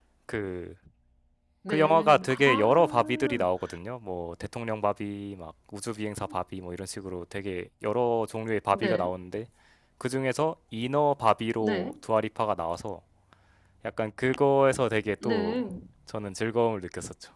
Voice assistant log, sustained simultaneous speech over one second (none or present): present